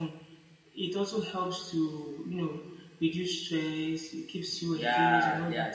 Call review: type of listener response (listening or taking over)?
taking over